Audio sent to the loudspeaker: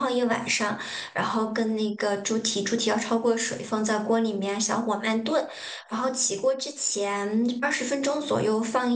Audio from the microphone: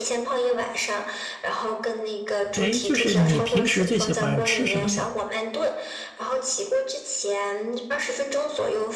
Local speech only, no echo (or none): 哎，就是你平时最喜欢吃什么呀？